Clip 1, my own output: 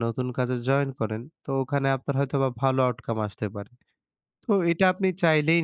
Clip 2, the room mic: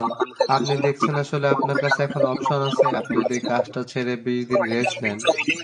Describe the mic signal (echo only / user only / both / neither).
both